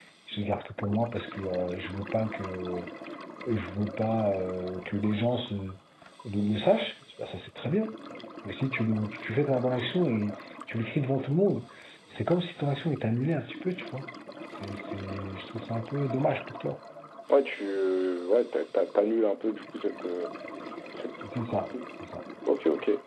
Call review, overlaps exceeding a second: none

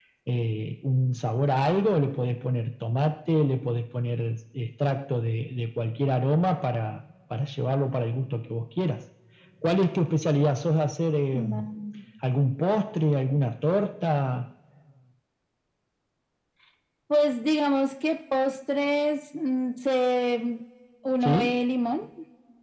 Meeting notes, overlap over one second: none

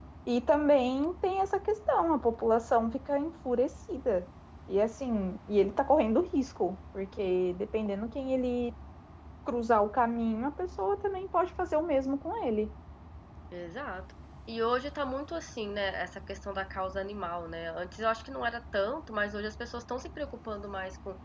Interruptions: none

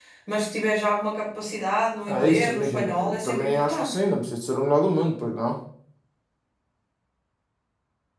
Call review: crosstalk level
present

